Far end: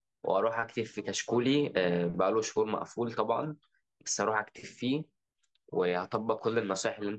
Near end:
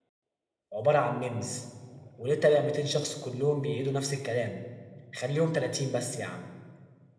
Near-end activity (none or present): present